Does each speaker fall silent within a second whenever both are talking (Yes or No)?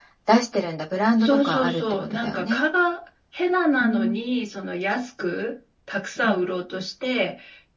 No